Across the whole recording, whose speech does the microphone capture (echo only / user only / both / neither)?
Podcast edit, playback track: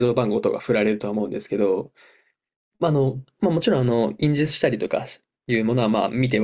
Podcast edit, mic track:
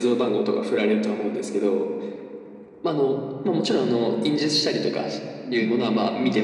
both